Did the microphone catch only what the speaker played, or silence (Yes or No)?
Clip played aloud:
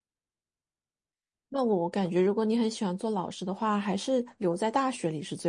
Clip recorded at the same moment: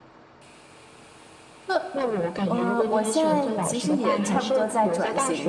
No